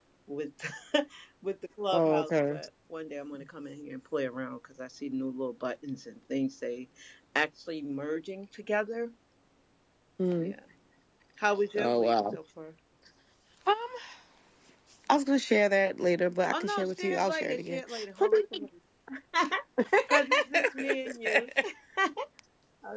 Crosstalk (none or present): present